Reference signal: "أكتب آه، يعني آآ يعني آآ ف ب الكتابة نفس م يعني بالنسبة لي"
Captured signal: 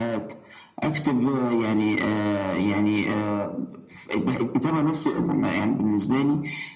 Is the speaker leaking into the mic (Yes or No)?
Yes